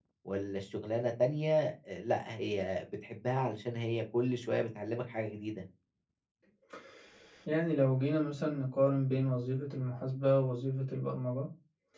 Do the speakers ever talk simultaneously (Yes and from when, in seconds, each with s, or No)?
No